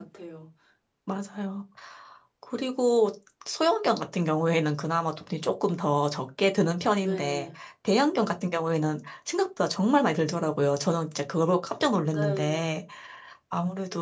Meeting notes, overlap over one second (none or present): none